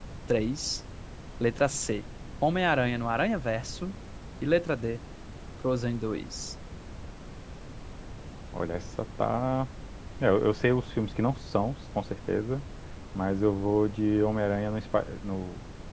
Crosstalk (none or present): none